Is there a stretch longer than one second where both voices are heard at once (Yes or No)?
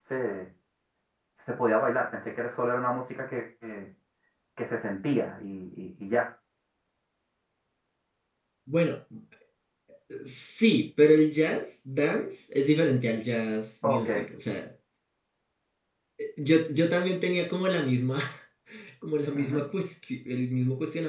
No